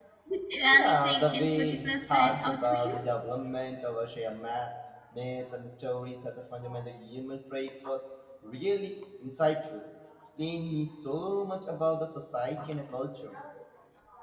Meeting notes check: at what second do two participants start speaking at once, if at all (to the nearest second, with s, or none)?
1 s